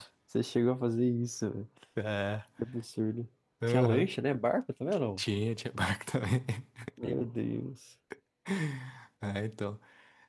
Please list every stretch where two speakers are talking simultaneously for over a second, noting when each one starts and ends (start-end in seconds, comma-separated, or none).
none